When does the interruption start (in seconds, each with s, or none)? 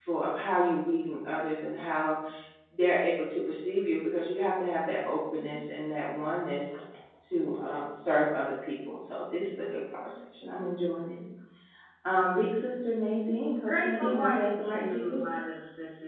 13.7 s